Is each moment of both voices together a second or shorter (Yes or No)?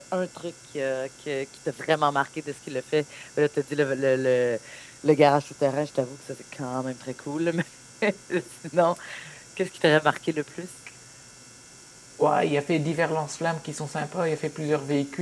Yes